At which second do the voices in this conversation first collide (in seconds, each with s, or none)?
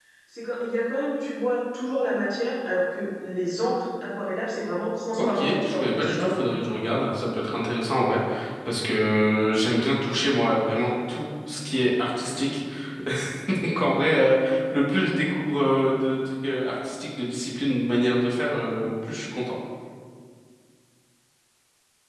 5.2 s